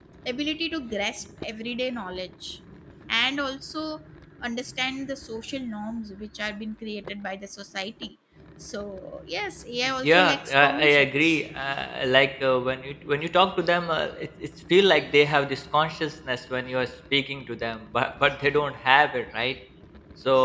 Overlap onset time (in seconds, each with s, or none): 9.8 s